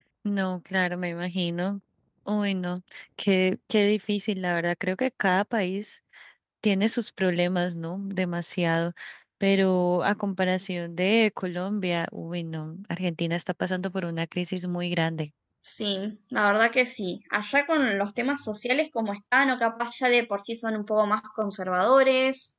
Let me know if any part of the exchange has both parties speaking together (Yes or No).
No